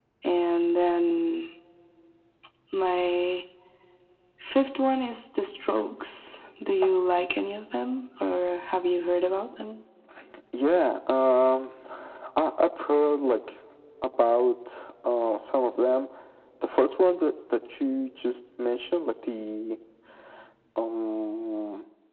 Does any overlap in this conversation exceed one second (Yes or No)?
No